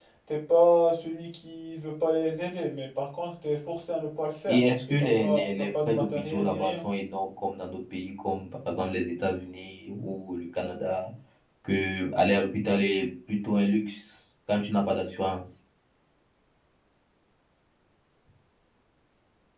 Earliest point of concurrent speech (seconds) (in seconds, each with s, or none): 4.5 s